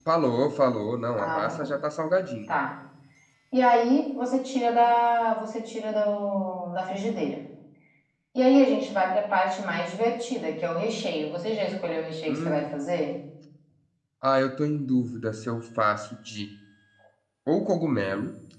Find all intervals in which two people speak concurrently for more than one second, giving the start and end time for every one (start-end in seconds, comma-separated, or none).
none